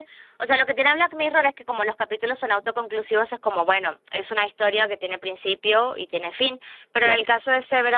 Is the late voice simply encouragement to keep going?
Yes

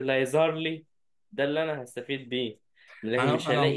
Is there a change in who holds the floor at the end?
No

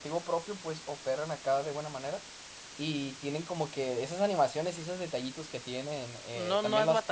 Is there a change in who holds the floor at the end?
Yes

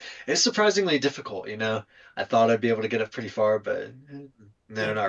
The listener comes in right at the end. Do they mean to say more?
Yes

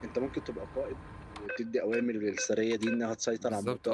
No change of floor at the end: No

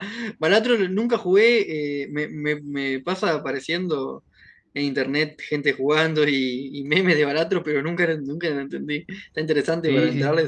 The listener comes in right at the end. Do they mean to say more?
Yes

